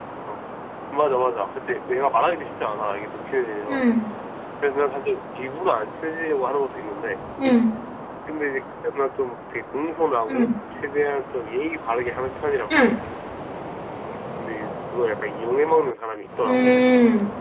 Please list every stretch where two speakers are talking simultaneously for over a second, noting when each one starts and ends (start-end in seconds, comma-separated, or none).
none